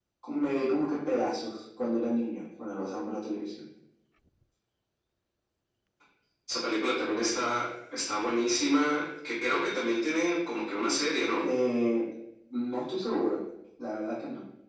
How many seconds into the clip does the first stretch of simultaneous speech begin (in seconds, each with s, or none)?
none